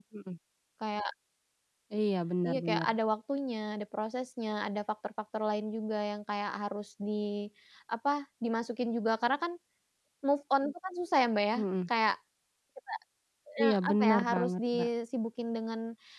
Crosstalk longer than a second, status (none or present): present